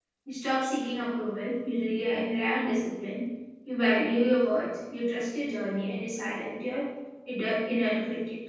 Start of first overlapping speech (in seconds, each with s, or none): none